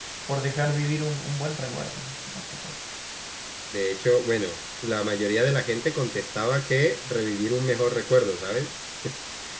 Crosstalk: none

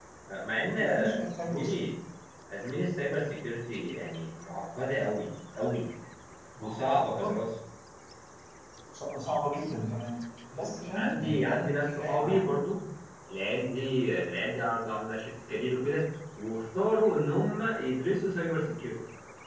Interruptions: present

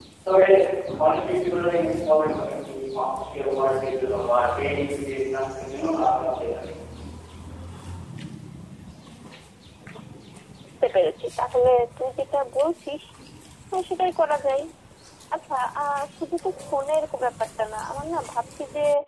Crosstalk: none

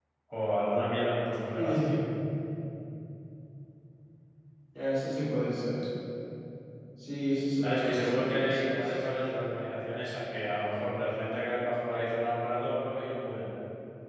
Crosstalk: present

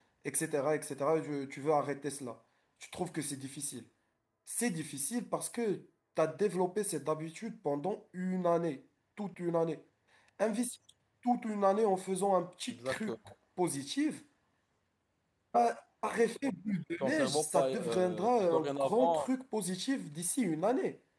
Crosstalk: present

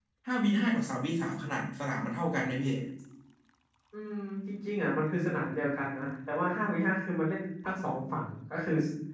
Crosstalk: none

